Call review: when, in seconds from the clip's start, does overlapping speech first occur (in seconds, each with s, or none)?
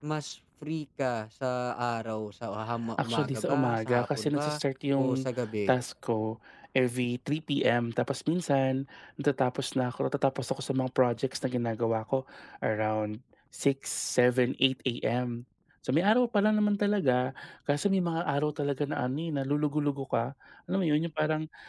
3.0 s